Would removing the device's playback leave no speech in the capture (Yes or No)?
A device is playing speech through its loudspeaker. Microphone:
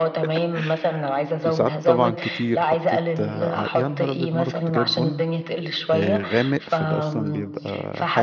No